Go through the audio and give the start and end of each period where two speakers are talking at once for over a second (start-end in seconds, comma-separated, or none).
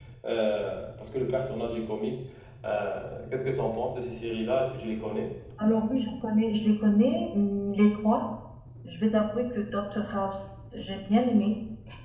none